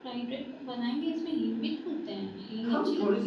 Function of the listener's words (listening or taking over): taking over